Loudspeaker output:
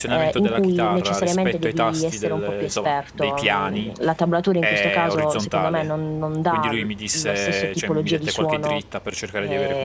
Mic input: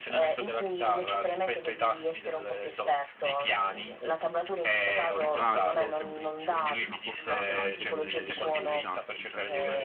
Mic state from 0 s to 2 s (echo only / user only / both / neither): echo only